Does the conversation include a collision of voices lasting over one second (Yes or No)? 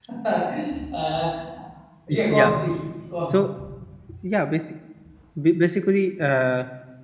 No